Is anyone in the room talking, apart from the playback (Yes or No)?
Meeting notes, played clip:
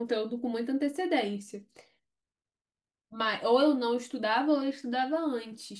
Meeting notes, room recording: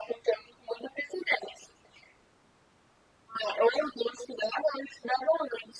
No